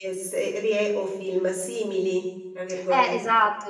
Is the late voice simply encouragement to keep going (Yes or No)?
No